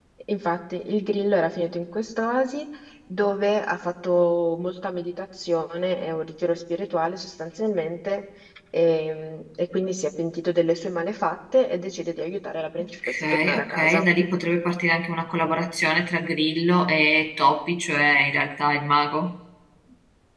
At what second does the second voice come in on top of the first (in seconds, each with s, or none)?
12.8 s